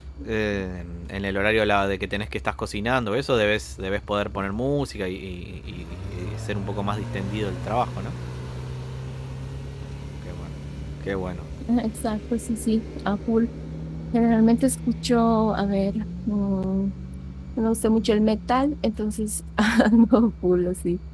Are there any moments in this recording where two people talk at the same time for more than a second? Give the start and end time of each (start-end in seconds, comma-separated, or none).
none